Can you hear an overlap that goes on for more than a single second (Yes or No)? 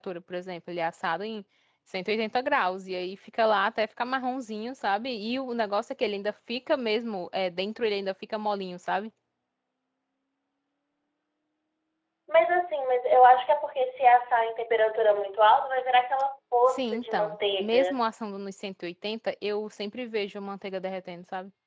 Yes